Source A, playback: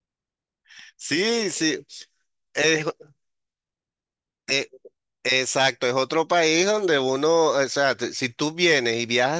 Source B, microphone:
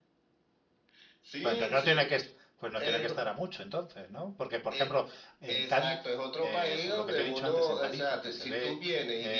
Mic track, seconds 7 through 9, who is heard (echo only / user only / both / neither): both